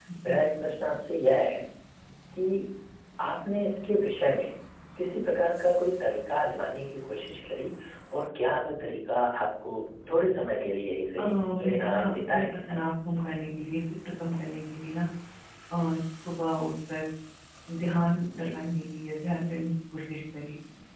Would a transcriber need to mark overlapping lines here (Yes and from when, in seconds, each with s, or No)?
Yes, from 11.2 s